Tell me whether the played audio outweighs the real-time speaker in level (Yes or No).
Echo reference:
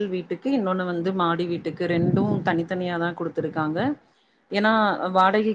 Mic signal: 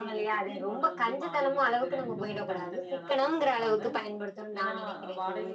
No